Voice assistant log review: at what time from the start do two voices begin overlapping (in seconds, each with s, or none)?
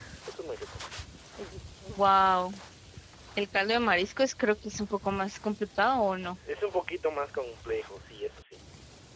none